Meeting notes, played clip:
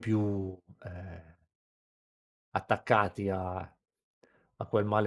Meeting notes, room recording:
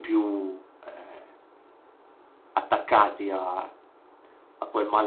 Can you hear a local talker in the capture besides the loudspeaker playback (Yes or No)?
No